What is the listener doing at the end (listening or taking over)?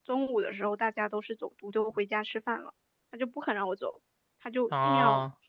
listening